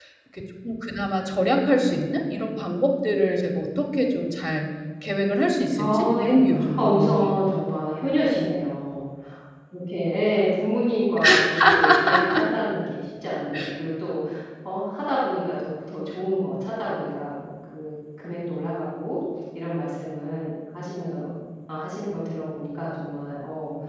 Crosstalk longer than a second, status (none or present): present